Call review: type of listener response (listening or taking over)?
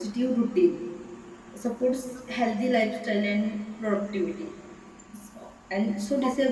listening